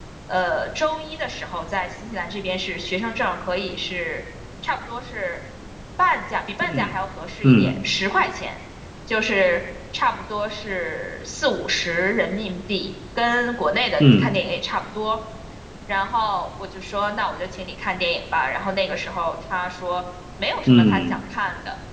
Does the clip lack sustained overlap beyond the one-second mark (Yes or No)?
Yes